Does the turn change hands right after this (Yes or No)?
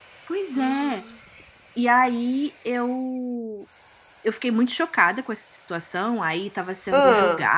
No